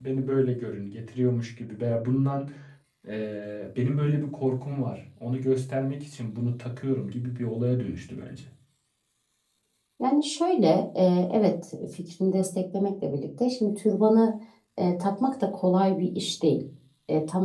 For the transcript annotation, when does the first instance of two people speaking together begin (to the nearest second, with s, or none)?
none